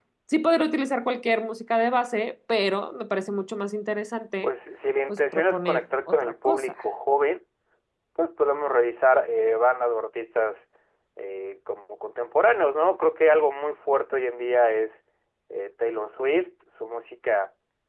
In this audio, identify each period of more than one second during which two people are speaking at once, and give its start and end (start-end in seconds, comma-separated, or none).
5.1-6.8